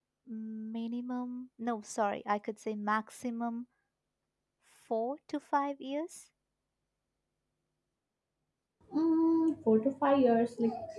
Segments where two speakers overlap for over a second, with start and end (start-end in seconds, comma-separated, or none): none